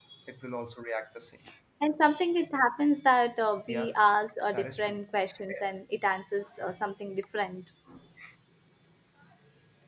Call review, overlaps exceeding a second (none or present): none